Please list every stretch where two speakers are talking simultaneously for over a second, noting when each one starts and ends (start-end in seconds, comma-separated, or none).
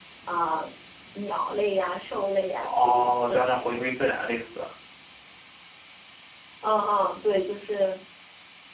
2.6-3.8